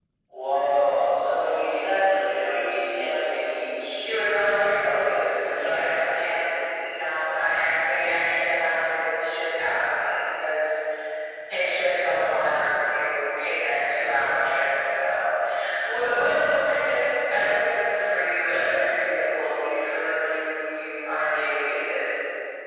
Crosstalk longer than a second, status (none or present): present